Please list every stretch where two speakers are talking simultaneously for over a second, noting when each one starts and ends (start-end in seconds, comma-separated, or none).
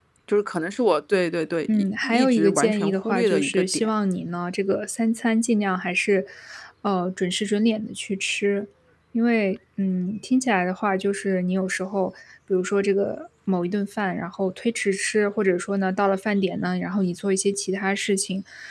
1.7-3.9